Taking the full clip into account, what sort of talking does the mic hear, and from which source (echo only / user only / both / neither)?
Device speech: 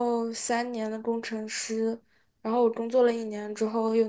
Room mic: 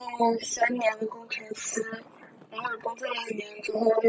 echo only